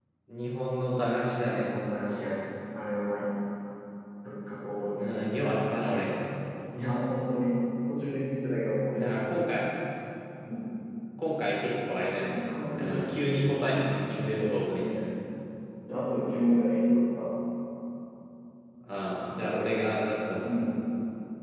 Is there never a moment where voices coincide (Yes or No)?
No